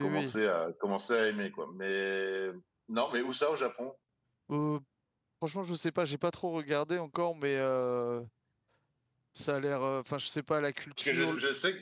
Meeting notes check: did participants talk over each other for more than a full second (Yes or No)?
No